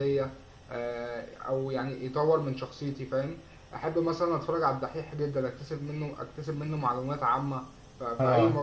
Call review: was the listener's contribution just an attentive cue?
Yes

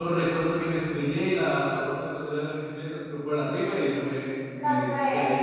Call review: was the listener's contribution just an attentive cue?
No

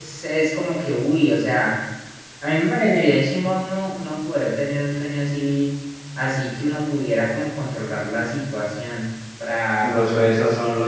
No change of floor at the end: No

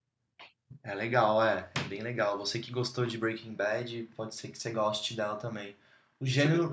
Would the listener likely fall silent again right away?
Yes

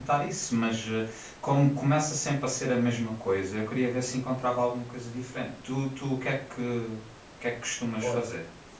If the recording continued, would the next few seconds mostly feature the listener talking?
Yes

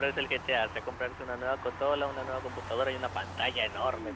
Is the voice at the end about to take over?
Yes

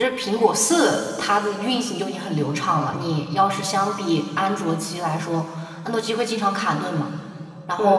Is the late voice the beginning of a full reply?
Yes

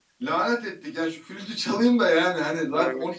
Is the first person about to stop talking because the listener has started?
No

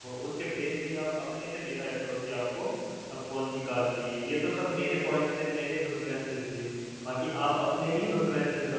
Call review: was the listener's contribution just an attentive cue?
Yes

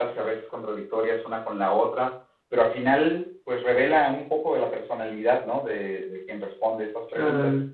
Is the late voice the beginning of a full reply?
Yes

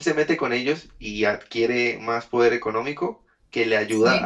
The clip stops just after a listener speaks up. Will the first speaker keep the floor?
Yes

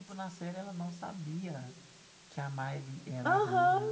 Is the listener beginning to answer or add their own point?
Yes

